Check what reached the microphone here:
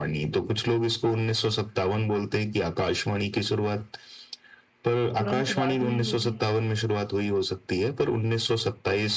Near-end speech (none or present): present